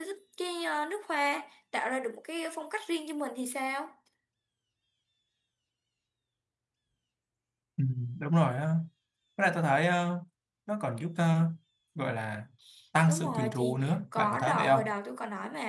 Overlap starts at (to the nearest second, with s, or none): 13 s